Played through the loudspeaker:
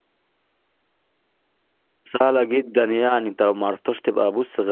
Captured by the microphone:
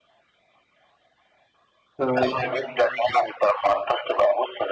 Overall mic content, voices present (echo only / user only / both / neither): both